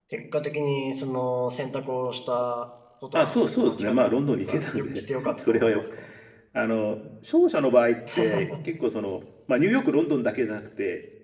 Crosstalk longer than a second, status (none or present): present